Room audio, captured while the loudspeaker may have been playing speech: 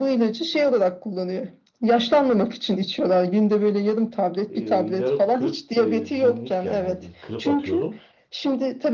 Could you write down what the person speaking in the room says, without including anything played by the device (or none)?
e, yarı kırıp e, binlik yani bir kırıp atıyordum.